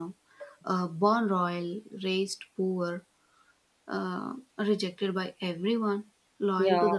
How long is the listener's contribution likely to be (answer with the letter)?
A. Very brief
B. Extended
A